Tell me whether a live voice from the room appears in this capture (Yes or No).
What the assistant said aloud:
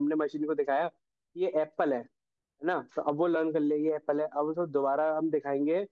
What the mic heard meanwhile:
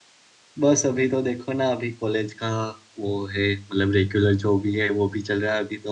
Yes